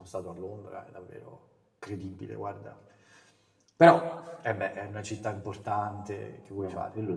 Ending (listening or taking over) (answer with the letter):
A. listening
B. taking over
B